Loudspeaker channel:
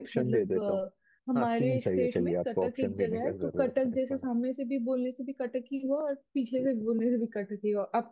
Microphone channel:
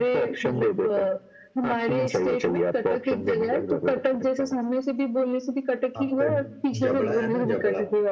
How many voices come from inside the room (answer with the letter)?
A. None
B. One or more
B